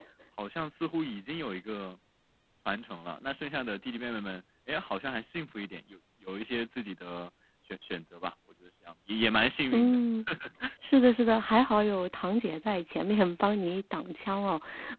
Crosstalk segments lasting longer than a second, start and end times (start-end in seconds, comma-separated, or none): none